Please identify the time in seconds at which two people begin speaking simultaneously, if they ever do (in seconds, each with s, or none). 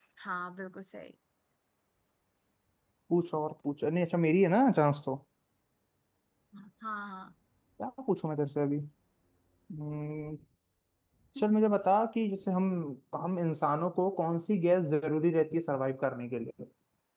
none